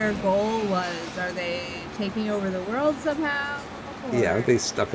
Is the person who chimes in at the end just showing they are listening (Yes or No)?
No